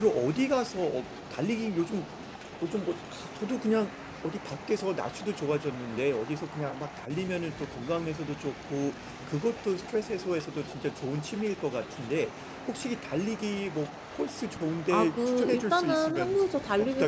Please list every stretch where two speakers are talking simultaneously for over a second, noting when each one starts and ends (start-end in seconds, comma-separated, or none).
14.9-16.4